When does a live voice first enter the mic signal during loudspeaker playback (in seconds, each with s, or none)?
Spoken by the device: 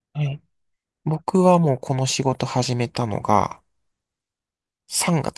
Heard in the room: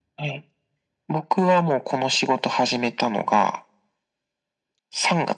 none